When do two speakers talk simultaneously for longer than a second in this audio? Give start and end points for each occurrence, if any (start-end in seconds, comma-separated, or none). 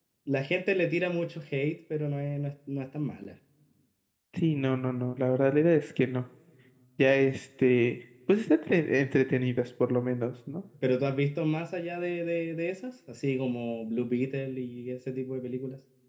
none